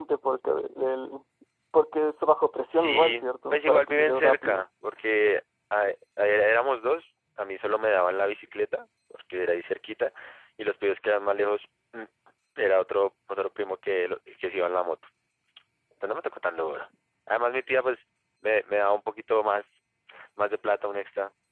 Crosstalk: present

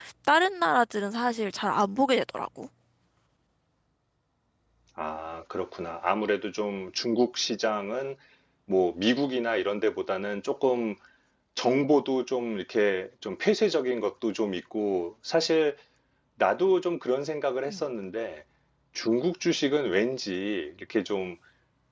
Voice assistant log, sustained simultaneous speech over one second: none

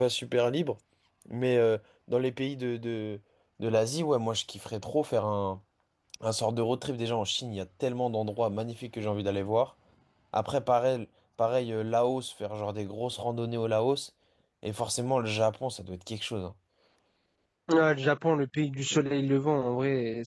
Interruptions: none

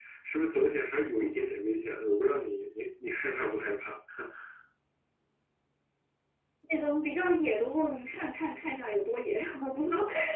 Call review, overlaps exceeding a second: none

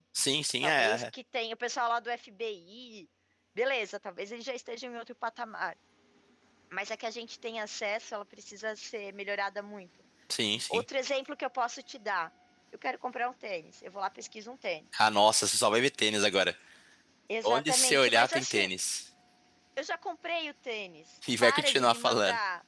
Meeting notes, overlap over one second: present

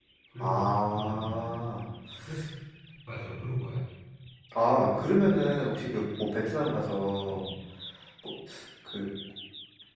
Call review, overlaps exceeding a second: present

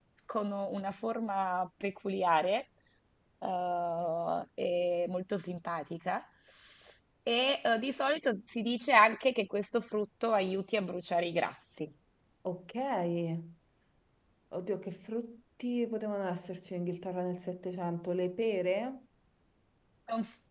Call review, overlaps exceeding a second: none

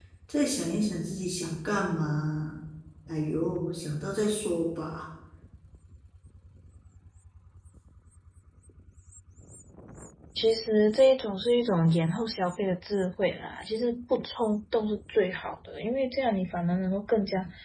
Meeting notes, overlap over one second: none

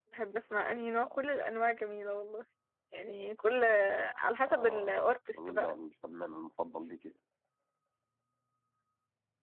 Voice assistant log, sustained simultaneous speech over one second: present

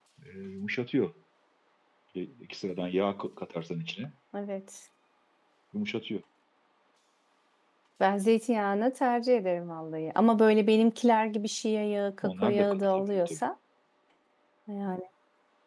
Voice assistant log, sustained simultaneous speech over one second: present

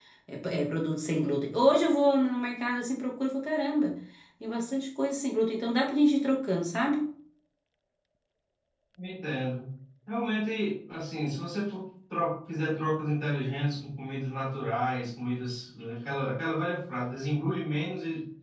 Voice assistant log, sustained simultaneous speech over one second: none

